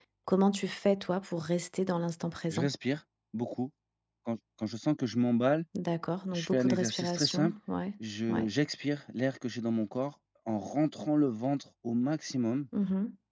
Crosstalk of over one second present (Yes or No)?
Yes